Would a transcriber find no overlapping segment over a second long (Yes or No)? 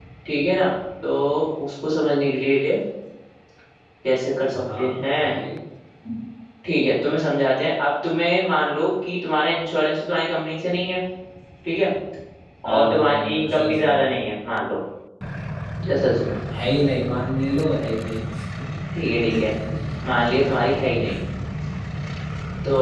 No